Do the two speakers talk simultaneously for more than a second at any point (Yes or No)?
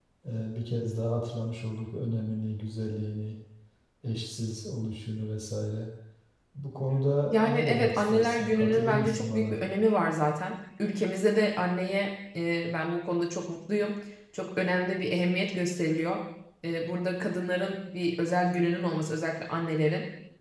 Yes